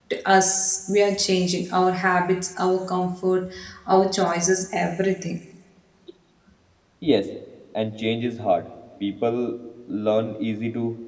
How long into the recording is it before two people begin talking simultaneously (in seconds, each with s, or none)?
none